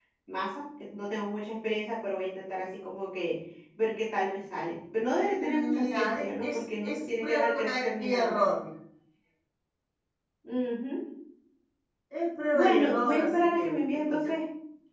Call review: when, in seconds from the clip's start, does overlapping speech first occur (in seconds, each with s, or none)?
5.2 s